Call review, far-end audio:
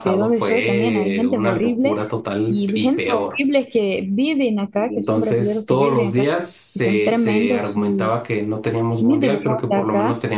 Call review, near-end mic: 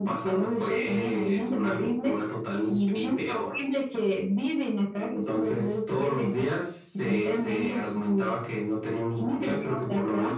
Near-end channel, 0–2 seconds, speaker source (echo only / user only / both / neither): echo only